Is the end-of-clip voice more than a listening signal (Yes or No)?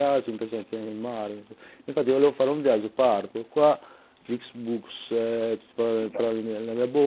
No